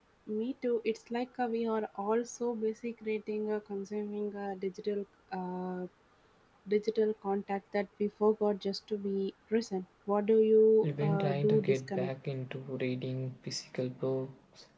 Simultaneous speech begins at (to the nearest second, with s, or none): 11 s